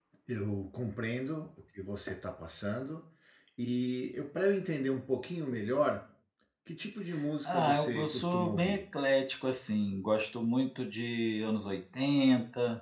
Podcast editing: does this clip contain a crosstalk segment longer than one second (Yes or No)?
Yes